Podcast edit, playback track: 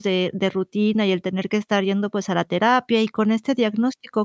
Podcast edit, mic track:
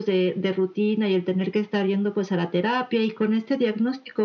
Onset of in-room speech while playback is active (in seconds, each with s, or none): none